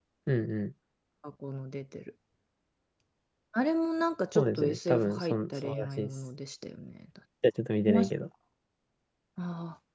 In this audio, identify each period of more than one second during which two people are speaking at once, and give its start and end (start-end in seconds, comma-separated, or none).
4.4-6.1